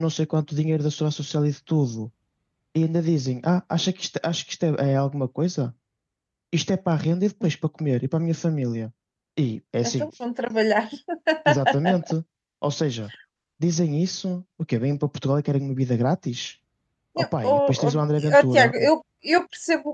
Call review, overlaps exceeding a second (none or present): present